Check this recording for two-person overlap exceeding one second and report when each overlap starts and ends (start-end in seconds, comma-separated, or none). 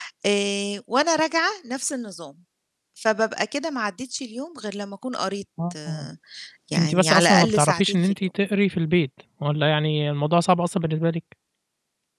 6.8-8.3